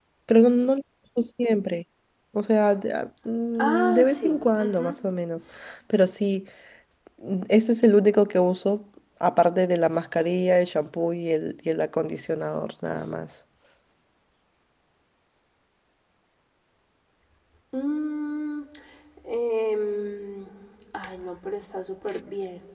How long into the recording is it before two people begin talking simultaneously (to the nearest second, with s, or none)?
4 s